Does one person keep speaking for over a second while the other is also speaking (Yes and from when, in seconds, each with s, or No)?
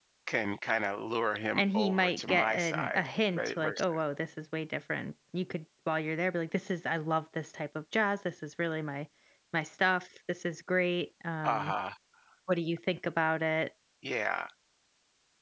Yes, from 1.6 s